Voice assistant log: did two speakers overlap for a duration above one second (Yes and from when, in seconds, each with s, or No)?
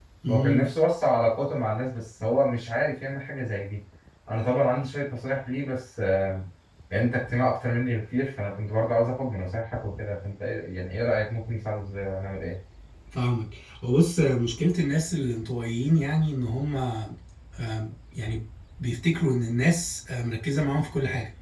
No